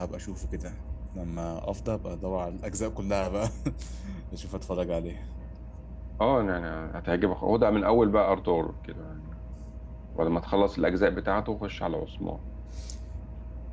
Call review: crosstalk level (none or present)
none